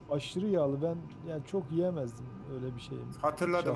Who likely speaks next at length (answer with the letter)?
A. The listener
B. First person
A